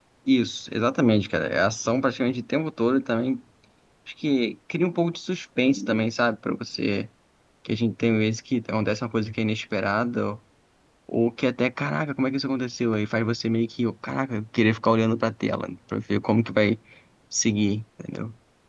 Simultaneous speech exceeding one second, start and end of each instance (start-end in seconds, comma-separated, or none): none